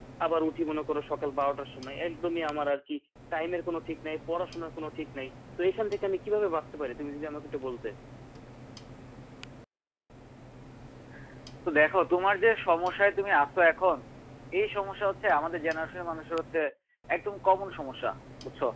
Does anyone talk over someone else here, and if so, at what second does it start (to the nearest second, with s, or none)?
none